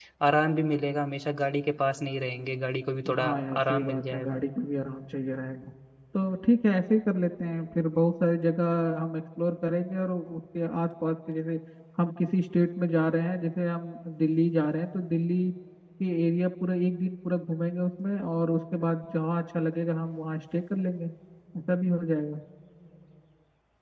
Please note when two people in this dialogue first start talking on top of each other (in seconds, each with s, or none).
3.0 s